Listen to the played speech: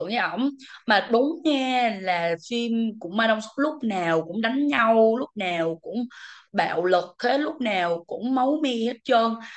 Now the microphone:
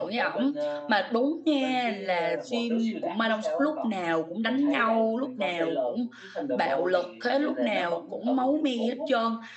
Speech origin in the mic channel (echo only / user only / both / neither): both